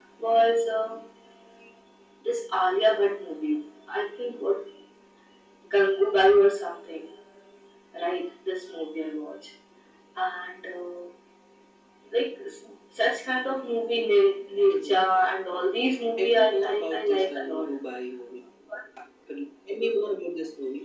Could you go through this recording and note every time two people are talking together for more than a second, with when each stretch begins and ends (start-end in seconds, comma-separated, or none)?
16.2-17.7